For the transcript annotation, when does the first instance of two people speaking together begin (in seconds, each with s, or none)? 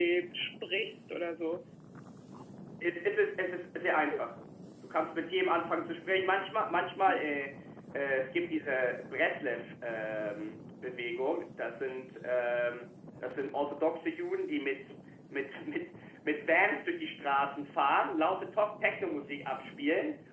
none